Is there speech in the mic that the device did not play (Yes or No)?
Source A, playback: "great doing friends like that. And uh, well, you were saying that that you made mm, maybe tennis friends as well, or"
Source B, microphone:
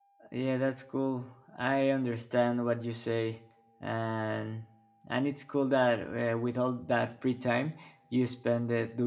Yes